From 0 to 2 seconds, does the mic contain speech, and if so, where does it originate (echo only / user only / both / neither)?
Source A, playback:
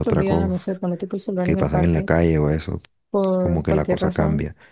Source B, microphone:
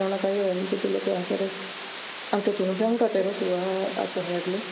user only